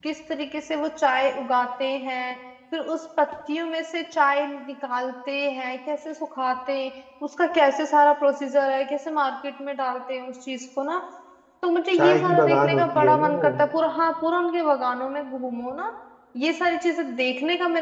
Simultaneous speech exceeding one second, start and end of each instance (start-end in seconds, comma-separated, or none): 11.9-13.5